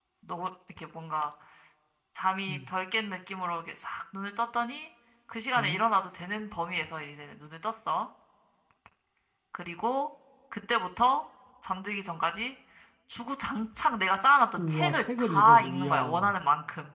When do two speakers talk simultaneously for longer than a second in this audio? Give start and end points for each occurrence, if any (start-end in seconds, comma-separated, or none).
14.6-16.3